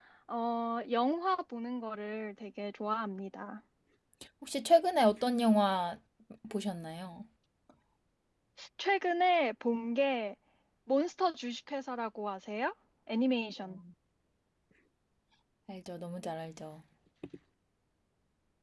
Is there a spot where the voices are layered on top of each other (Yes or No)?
No